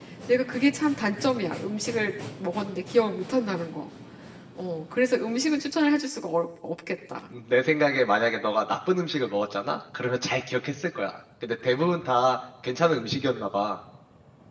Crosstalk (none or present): none